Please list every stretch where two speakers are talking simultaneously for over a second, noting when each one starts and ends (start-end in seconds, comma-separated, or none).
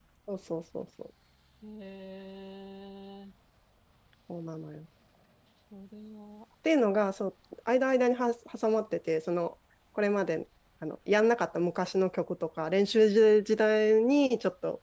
none